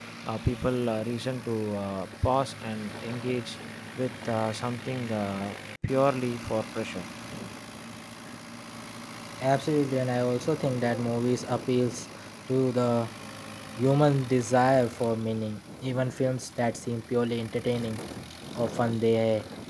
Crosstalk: none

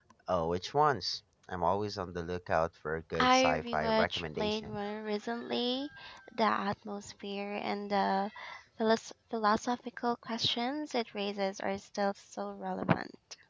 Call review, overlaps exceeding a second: present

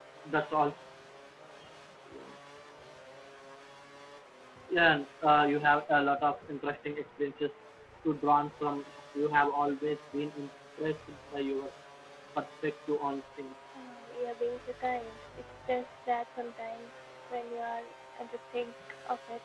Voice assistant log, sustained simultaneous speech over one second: none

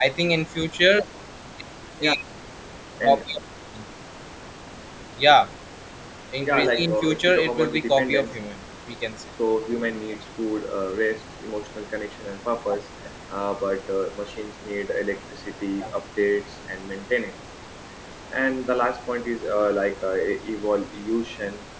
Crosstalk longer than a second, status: present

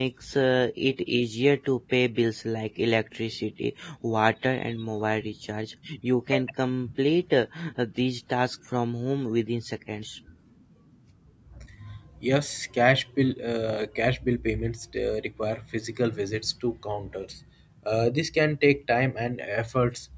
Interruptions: none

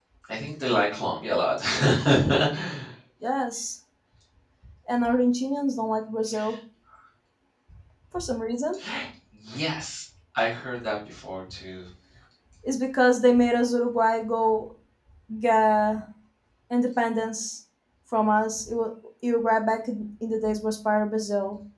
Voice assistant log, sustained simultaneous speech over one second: none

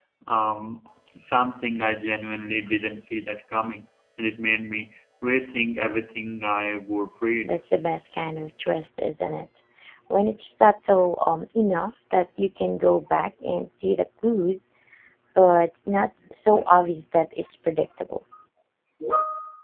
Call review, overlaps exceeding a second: none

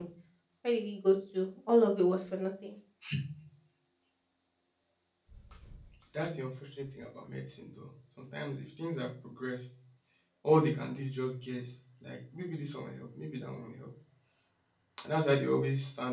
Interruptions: none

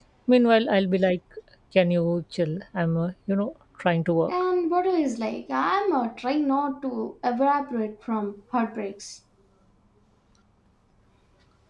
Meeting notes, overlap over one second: none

